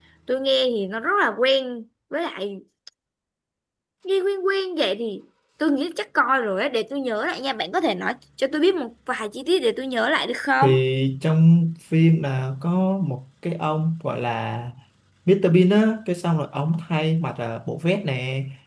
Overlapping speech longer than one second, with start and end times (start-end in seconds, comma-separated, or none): none